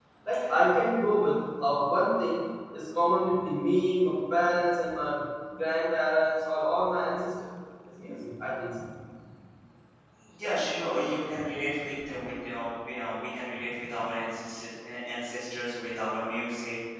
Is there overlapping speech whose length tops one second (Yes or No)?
No